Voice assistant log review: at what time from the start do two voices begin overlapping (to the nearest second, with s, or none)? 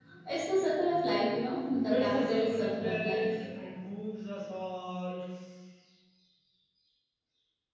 2 s